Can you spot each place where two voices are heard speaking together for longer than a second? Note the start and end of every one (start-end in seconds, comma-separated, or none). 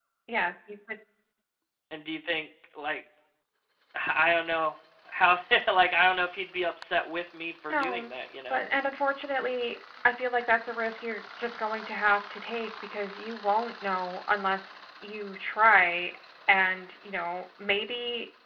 none